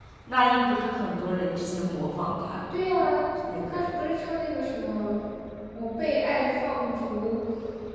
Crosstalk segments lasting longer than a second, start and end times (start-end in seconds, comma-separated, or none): none